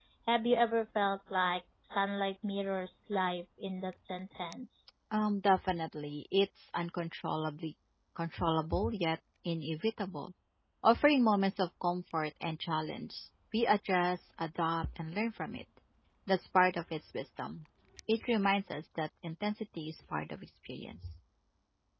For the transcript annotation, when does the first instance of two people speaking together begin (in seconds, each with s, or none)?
none